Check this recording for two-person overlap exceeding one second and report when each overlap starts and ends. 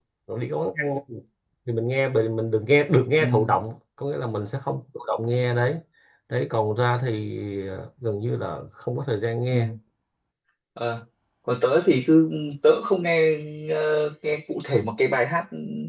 none

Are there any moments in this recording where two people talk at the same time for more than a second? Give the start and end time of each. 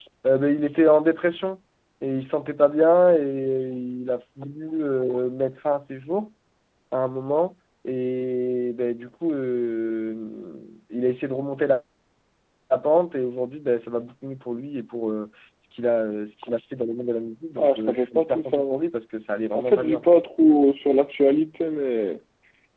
17.6-18.8

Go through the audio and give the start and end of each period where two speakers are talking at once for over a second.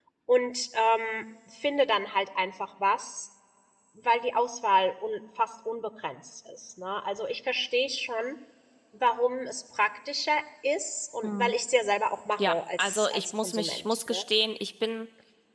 12.4-14.2

